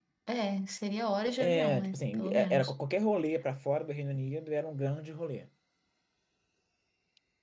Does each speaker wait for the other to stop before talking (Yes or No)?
No